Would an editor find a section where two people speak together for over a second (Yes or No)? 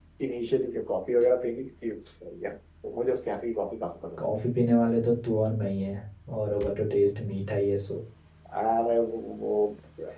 No